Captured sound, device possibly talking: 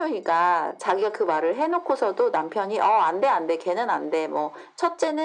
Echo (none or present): present